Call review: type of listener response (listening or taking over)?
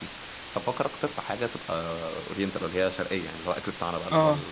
taking over